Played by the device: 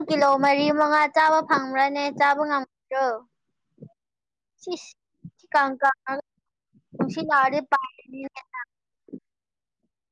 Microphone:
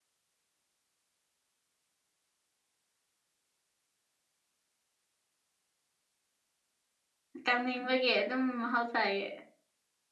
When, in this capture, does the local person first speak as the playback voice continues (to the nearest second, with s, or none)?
7 s